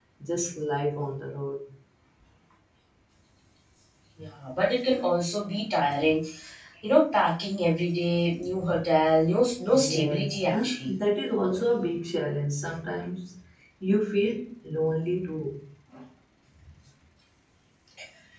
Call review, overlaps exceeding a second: present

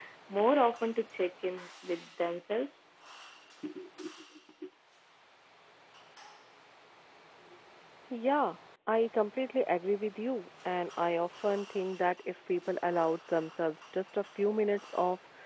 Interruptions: none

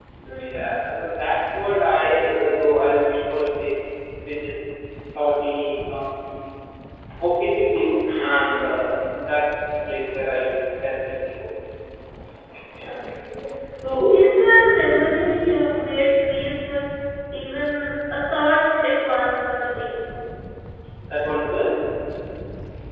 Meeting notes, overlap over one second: none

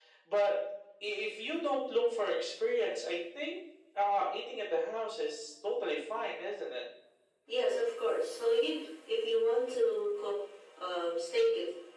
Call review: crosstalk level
none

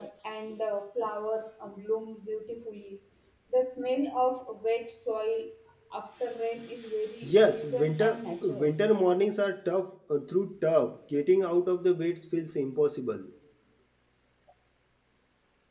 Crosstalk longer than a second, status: present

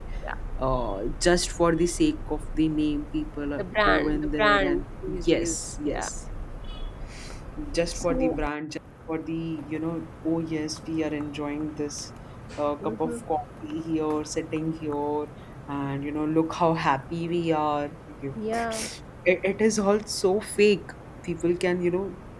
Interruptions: present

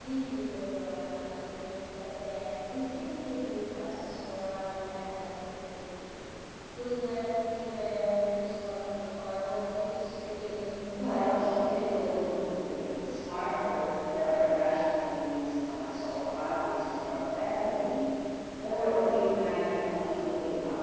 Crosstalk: present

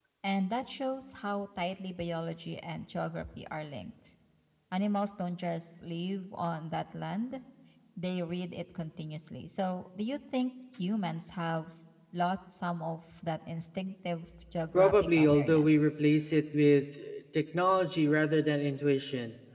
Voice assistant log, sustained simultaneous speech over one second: present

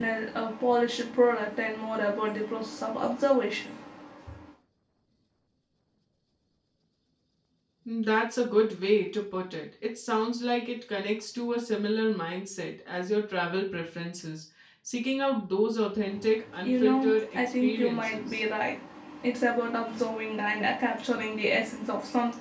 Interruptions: present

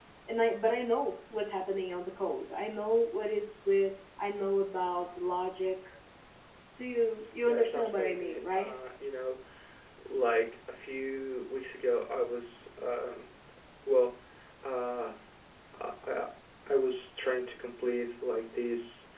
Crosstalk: present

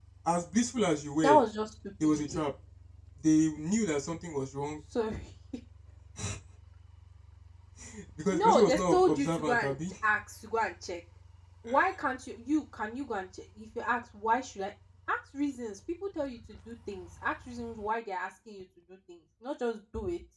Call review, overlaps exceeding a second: present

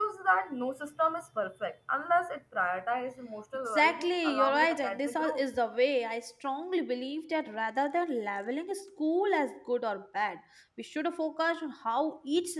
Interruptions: present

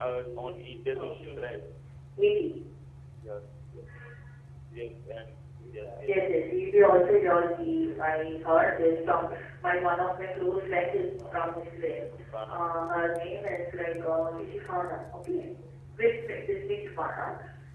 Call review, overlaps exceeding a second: present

